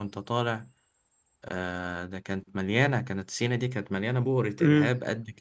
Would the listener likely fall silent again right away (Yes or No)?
Yes